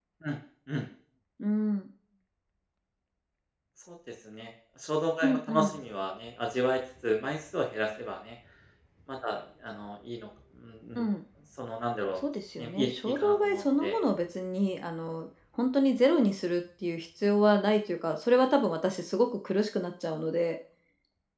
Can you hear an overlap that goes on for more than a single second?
Yes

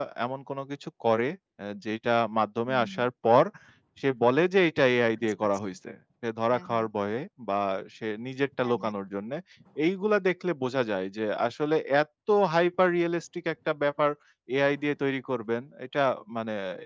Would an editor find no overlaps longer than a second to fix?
Yes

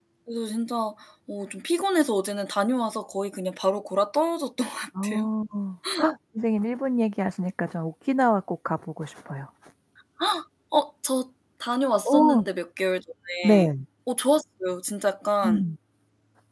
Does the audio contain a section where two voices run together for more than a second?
No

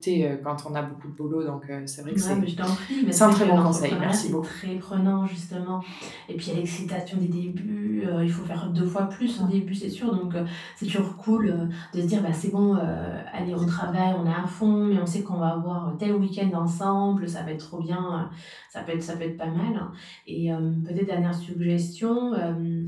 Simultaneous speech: Yes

